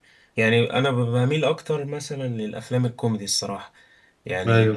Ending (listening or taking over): listening